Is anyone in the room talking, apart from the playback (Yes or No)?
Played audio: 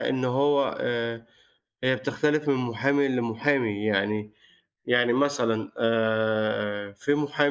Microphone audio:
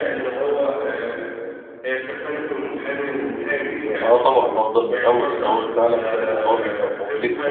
Yes